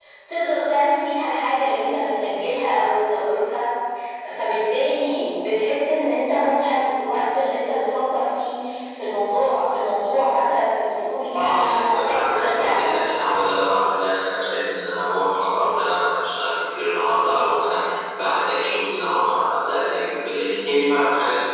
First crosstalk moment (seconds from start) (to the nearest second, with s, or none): 11 s